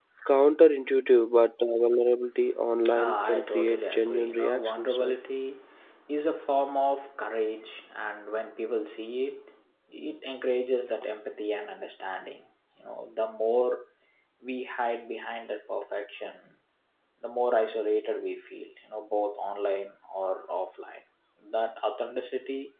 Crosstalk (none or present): present